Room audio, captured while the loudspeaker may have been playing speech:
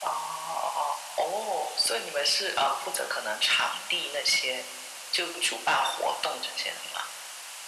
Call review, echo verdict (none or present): present